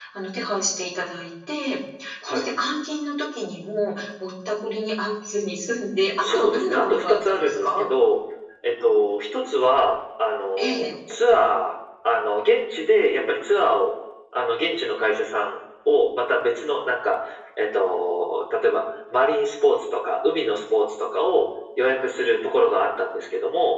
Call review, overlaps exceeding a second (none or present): present